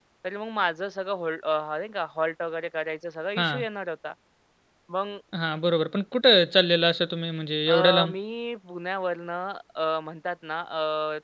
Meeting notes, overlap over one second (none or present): none